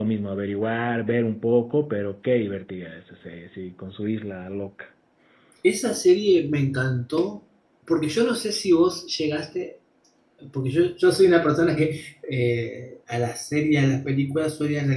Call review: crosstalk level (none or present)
none